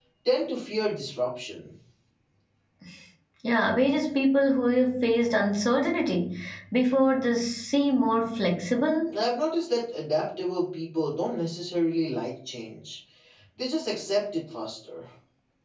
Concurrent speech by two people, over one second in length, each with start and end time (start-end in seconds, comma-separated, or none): none